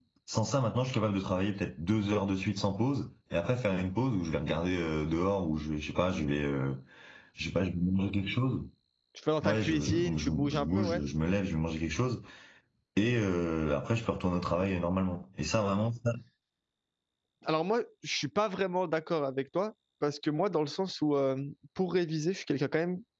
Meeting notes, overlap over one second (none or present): present